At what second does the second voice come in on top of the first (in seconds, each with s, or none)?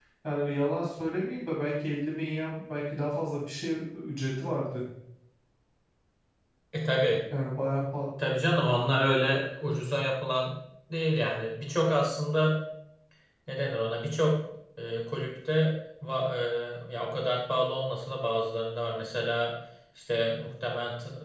none